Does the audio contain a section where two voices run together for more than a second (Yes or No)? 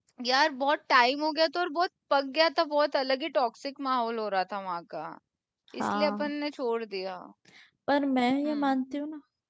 No